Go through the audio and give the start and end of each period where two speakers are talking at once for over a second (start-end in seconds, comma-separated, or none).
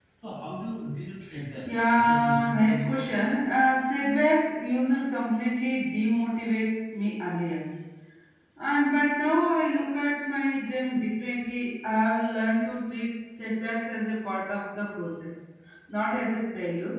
1.7-3.1